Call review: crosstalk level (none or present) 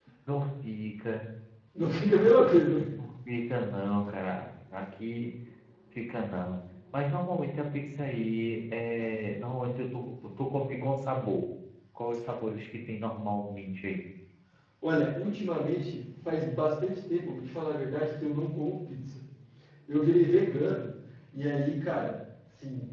none